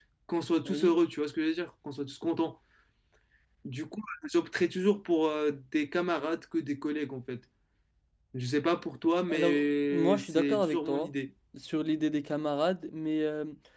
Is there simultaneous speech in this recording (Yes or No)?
Yes